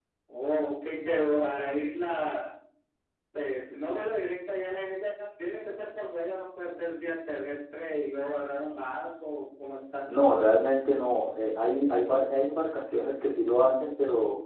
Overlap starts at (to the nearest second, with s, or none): none